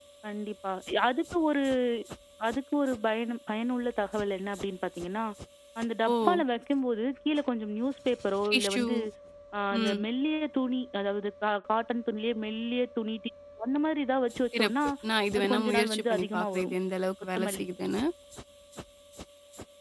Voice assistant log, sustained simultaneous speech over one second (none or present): present